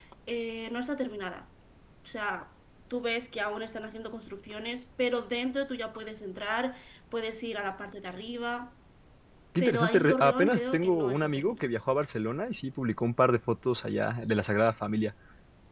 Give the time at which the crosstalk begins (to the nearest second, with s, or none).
10 s